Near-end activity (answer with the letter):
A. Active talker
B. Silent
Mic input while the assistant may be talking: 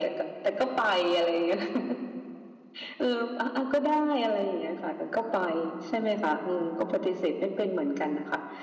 B